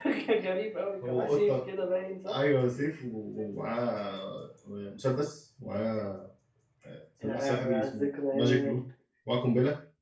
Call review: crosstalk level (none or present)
present